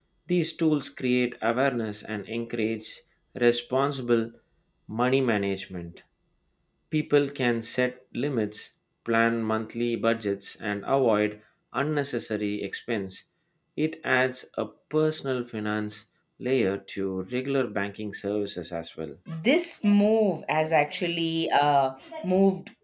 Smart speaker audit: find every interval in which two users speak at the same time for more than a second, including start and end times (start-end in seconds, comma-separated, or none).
none